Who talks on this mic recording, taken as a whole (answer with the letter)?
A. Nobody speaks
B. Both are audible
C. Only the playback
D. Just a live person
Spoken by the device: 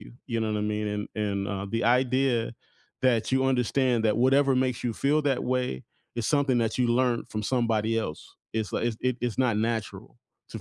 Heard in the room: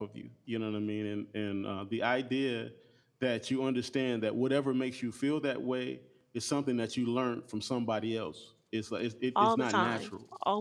B